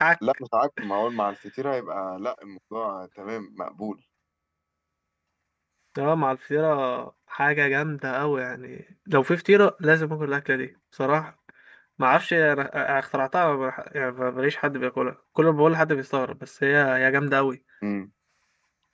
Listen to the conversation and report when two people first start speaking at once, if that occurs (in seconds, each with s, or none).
none